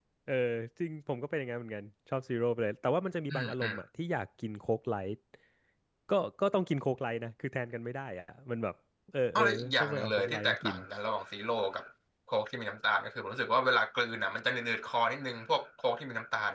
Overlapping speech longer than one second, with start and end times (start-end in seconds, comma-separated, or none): 9.3-10.8